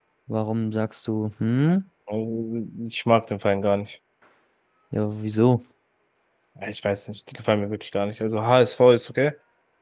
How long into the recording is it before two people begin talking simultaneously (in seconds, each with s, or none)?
none